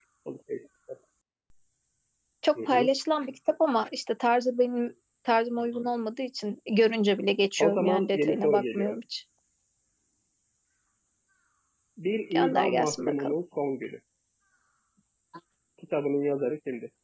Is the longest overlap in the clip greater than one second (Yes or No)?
Yes